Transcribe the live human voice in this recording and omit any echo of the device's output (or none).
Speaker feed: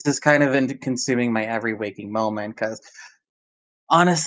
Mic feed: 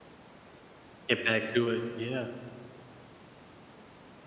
Get back to it, yeah.